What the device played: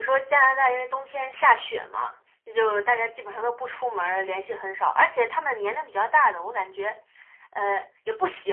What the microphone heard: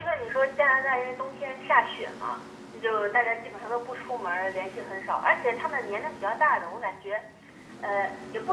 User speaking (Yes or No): No